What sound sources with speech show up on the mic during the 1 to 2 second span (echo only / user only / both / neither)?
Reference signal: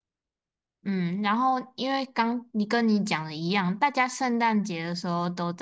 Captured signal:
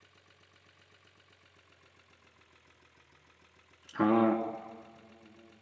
neither